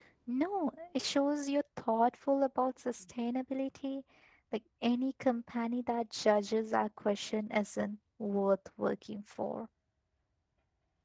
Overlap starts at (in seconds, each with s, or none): none